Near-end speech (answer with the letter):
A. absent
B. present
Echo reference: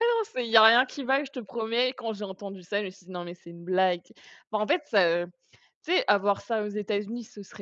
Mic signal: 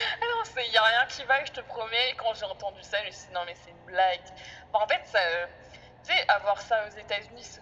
A